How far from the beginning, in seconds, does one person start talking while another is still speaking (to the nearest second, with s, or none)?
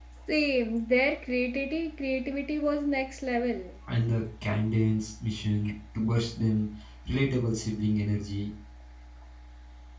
none